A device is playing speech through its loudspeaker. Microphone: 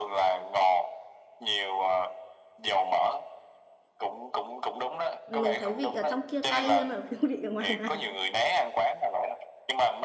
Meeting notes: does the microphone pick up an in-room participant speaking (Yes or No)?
Yes